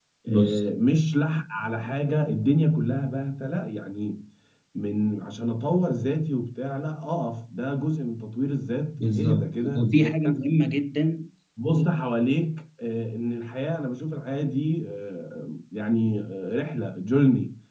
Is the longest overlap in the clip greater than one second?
Yes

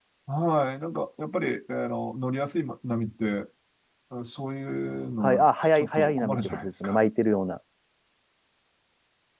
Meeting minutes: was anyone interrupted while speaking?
Yes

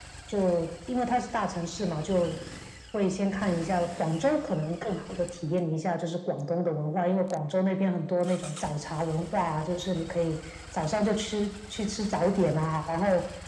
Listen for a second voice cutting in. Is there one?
No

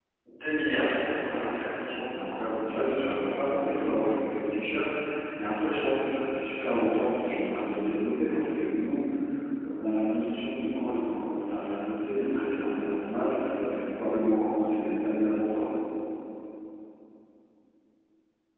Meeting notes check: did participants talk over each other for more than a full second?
Yes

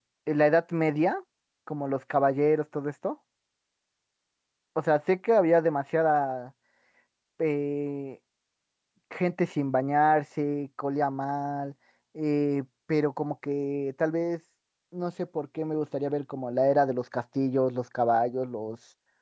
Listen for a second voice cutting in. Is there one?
No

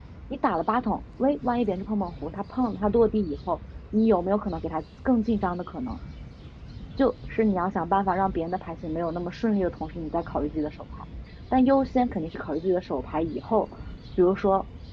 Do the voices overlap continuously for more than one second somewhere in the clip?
No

